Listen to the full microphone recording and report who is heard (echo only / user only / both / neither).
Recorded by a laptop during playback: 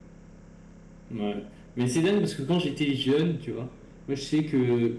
user only